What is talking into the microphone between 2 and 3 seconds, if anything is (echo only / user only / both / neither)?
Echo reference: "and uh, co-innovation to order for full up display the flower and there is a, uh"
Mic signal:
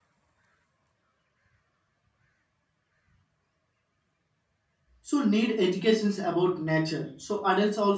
neither